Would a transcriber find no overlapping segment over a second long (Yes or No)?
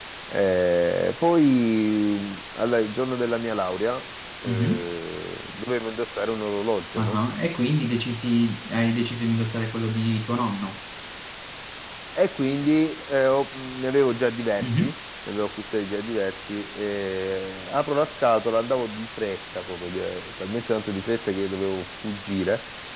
Yes